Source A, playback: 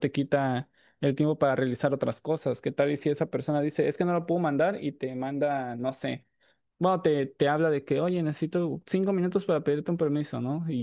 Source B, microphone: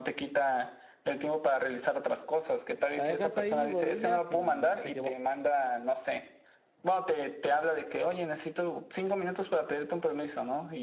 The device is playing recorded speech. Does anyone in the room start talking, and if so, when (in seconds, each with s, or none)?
2.9 s